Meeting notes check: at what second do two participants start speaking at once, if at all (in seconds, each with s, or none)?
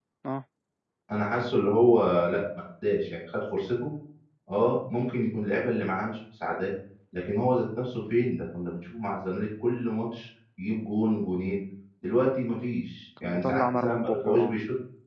13.2 s